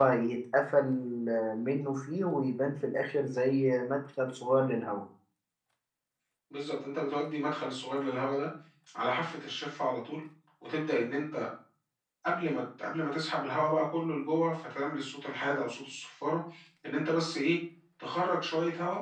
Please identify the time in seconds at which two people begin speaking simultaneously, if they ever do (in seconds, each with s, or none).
none